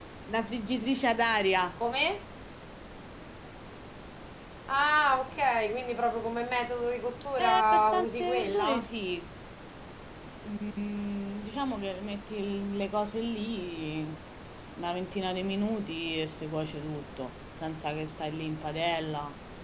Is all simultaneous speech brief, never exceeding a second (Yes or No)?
No